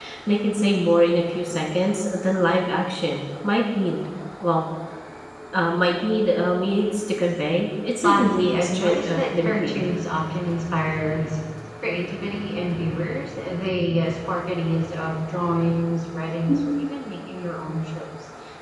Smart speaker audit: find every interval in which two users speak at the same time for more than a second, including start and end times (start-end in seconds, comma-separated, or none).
8.0-9.8